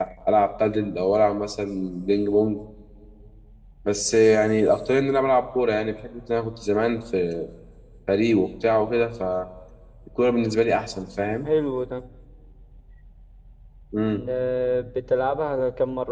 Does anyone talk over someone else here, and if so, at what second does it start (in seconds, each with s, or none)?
none